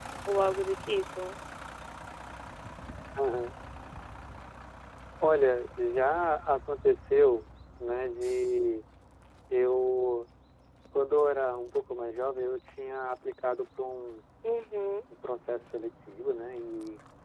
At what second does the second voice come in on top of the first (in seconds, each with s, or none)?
none